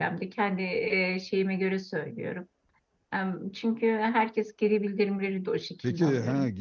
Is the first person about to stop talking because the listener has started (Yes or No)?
Yes